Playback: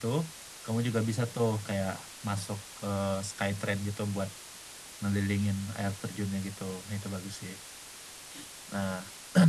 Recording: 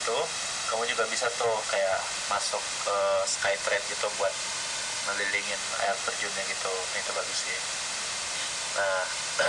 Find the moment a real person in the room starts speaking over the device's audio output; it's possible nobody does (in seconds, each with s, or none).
none